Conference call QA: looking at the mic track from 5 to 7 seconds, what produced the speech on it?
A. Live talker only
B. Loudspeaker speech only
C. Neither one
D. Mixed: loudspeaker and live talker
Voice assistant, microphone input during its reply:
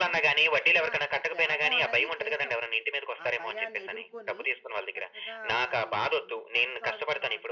D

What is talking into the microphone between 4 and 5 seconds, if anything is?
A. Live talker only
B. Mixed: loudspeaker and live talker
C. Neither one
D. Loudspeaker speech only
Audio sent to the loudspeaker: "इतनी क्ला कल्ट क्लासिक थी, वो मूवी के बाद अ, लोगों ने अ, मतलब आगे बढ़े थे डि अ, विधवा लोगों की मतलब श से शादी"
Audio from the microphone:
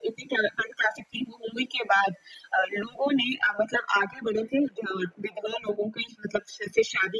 D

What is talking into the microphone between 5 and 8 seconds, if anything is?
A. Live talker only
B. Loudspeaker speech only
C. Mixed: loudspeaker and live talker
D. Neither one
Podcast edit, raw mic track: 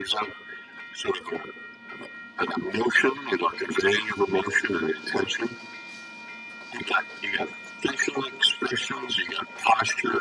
B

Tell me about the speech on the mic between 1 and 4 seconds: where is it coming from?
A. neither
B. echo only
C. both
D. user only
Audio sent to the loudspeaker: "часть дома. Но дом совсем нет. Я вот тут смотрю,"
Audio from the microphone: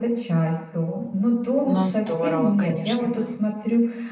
C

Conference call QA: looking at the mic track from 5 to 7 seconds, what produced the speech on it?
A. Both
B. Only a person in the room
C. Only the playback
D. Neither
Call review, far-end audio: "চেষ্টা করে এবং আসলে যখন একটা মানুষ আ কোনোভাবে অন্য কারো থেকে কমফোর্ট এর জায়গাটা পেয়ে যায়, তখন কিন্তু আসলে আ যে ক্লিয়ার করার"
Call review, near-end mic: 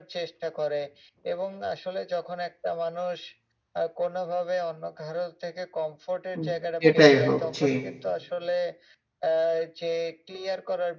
A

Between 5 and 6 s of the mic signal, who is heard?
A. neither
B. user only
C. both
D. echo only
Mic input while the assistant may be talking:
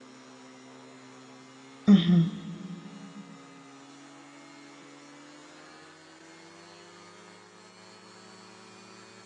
A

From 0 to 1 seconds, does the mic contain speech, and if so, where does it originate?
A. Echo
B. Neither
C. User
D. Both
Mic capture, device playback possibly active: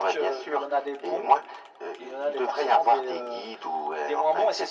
A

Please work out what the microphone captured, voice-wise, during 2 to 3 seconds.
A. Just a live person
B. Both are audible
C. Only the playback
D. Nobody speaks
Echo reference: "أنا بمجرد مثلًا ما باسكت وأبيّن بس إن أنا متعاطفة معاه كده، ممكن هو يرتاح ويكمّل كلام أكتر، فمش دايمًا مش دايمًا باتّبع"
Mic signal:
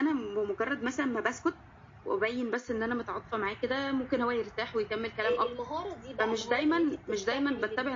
C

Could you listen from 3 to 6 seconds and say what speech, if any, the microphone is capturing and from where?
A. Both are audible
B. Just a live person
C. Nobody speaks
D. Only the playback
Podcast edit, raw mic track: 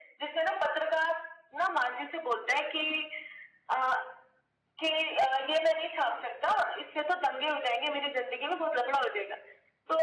D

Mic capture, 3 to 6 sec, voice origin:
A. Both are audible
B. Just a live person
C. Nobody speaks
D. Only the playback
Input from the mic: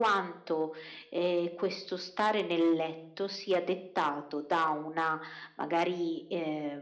D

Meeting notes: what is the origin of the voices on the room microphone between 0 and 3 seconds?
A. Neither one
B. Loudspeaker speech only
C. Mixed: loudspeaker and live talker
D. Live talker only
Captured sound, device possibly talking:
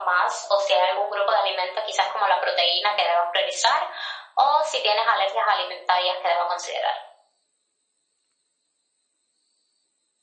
B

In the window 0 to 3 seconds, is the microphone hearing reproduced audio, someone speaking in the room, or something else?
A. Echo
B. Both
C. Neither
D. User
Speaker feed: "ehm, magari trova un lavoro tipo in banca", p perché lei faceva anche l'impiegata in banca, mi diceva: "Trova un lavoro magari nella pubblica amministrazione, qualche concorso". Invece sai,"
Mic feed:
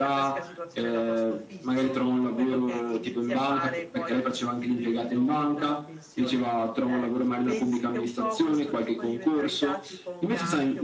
B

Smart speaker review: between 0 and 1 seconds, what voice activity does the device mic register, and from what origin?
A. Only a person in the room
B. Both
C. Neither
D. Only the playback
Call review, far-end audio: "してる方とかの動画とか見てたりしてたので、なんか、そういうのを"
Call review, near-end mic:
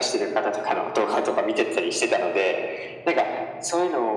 D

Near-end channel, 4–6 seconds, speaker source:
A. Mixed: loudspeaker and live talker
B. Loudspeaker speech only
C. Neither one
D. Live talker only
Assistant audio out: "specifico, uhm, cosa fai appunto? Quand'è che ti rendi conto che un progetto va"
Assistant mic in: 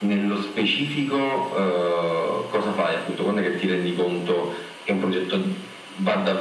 B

